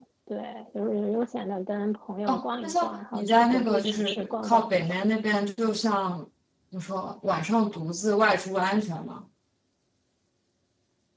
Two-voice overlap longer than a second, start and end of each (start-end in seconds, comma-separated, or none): 2.3-5.0